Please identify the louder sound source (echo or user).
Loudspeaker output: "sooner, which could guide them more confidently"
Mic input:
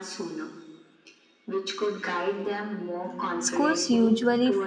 user